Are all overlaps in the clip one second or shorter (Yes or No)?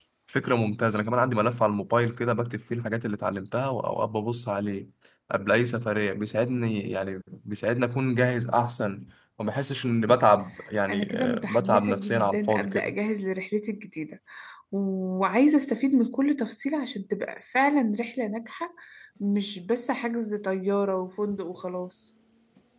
No